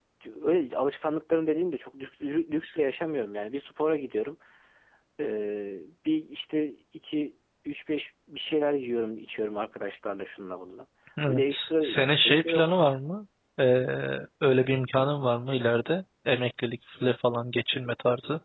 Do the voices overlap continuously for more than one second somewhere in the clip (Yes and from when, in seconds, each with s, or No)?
Yes, from 11.3 s